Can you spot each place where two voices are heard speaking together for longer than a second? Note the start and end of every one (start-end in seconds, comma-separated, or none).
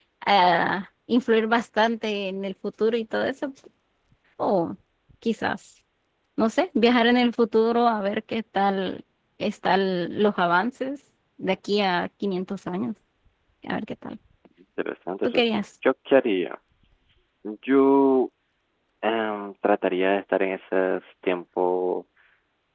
none